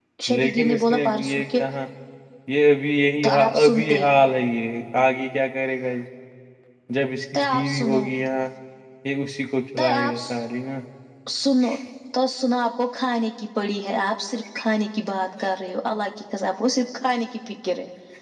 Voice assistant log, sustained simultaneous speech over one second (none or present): present